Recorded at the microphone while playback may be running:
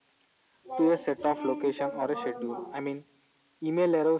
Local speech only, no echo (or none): like it prevents the burnout